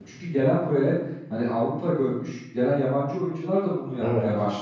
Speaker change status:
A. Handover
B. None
B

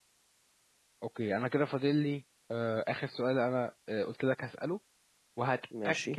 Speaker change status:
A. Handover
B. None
B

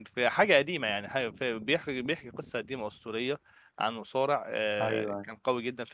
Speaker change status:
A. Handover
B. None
B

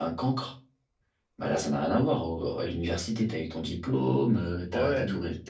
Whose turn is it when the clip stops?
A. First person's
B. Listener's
B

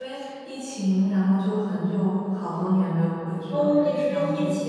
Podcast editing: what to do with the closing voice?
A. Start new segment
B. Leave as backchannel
A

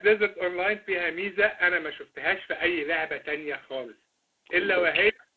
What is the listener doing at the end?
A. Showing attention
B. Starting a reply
A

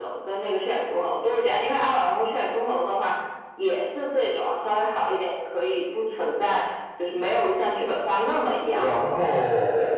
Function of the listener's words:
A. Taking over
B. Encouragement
A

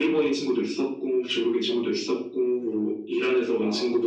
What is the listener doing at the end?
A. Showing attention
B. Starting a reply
A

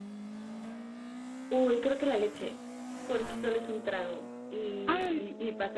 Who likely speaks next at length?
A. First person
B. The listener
A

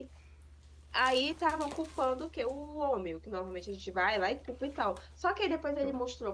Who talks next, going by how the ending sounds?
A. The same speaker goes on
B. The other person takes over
A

